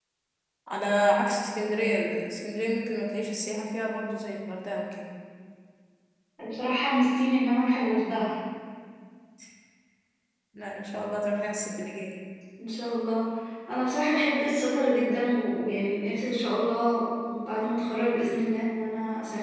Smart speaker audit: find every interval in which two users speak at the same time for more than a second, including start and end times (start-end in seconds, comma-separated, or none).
none